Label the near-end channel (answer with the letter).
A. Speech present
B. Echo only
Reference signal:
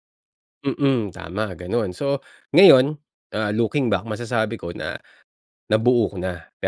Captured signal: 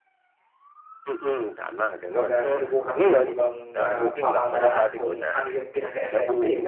A